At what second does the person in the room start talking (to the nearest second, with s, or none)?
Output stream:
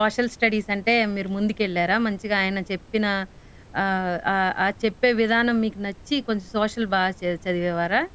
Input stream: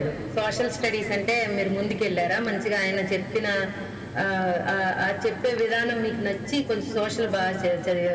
none